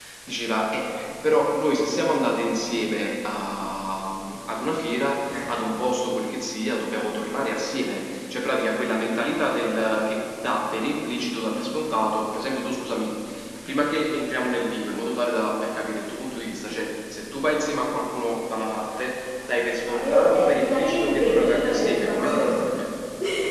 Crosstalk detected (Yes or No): Yes